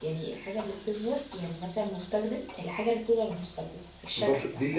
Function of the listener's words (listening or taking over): taking over